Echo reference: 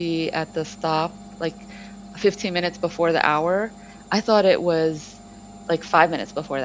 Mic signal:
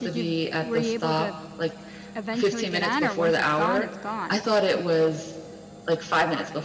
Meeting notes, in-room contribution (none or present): present